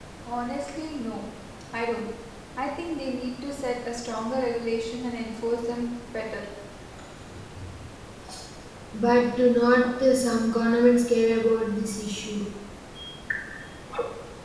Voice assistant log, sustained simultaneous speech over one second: none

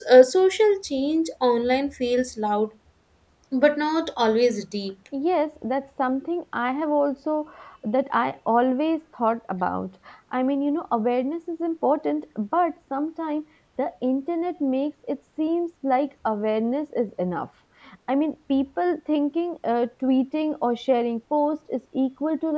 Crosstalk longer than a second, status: none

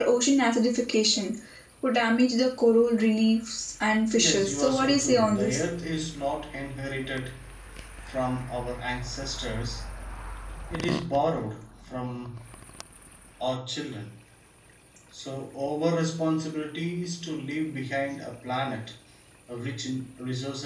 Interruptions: present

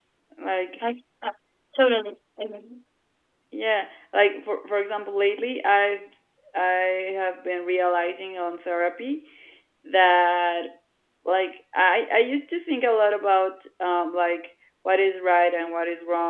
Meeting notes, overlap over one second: none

